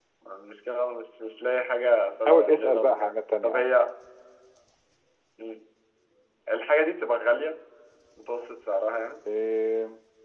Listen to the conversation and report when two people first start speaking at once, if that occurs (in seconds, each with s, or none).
2.2 s